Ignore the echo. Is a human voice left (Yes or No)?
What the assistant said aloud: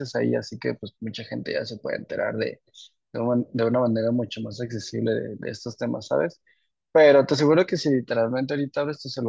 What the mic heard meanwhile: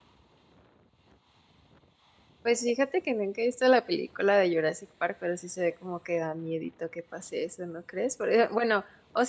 Yes